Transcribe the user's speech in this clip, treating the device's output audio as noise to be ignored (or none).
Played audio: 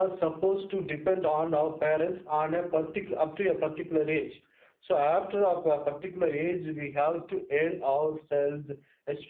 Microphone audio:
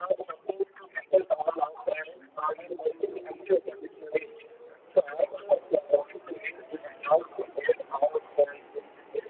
none